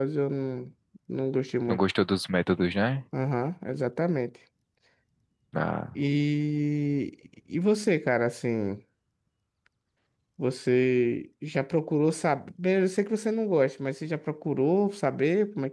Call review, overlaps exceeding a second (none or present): none